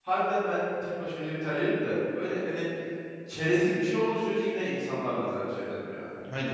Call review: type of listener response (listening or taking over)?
taking over